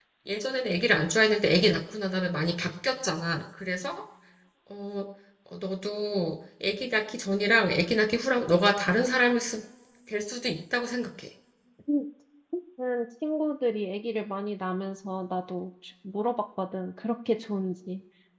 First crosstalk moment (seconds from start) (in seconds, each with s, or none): none